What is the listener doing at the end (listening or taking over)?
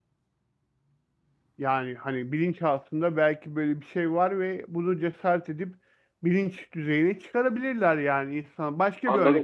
taking over